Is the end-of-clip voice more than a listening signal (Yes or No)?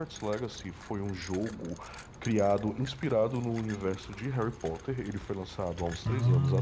No